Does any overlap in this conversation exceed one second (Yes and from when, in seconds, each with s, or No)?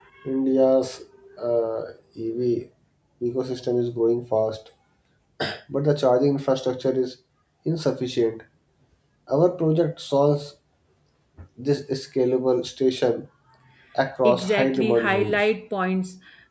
Yes, from 14.2 s